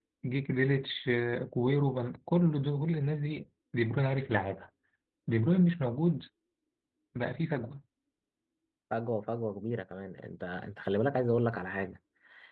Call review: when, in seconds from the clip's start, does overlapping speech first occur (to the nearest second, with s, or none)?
none